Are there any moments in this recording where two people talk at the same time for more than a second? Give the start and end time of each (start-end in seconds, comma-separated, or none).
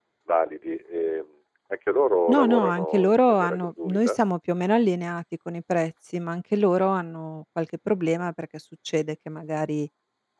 2.3-4.2